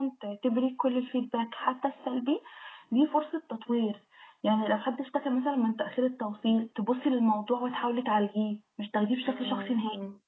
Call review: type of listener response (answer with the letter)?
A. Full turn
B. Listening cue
A